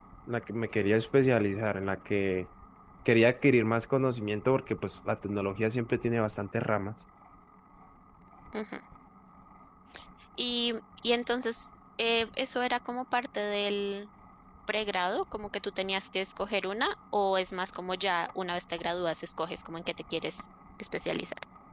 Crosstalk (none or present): none